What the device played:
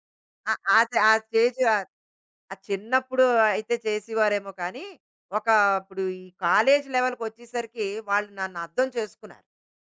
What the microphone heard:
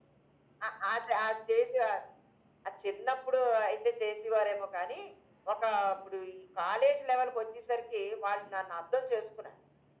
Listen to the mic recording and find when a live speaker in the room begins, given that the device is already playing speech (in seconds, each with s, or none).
none